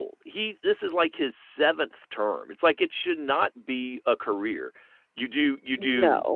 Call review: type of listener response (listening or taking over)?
listening